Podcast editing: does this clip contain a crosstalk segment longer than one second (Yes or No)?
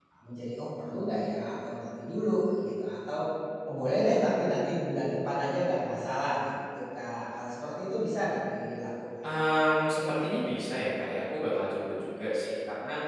No